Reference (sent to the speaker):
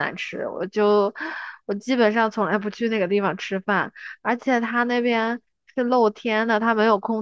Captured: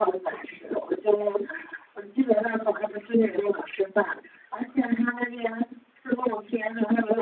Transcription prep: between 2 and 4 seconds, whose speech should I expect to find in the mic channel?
echo only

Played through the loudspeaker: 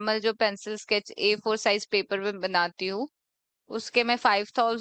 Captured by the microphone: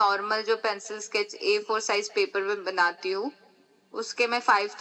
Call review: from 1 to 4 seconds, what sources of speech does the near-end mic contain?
echo only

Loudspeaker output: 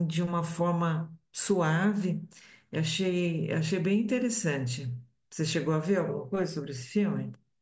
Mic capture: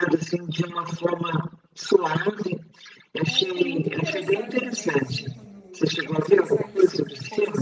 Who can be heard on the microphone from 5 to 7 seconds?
both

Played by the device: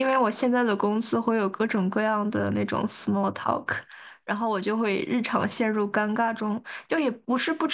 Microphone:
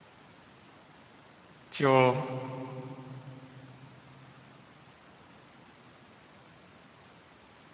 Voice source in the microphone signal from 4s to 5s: neither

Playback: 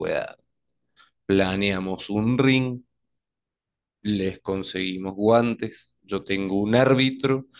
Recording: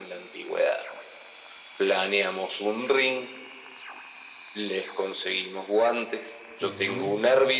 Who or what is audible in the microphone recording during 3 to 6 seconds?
echo only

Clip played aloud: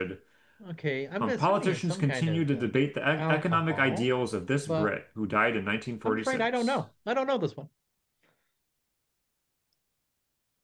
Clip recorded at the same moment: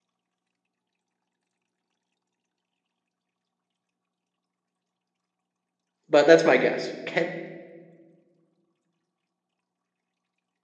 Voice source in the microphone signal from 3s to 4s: neither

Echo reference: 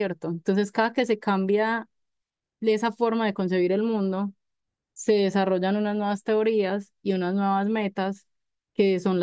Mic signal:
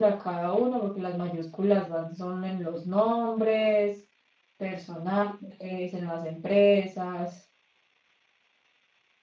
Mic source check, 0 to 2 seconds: user only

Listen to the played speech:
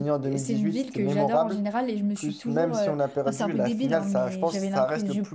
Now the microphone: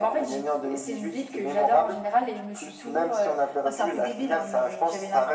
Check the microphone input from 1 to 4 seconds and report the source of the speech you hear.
echo only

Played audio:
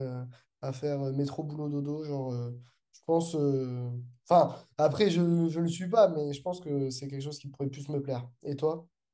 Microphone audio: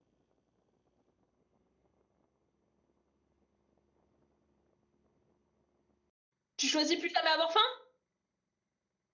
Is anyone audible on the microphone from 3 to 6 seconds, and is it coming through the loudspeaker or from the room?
neither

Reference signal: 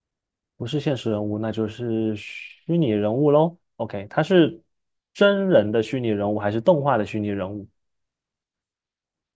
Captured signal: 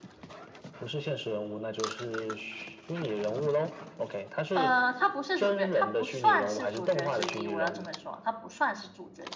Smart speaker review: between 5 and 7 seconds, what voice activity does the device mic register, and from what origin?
both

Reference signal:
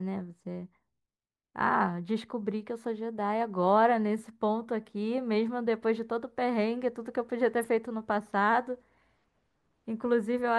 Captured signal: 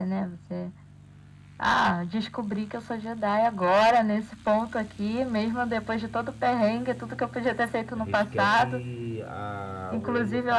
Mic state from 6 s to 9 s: both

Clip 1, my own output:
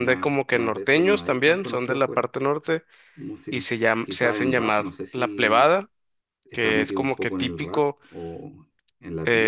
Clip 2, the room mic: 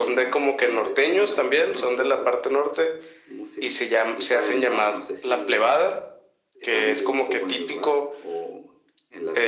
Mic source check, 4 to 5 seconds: echo only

